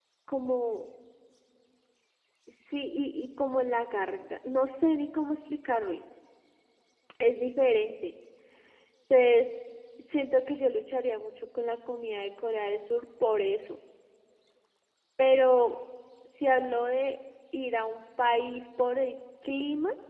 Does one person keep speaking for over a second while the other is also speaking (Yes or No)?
No